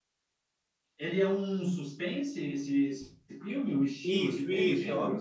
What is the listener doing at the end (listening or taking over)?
taking over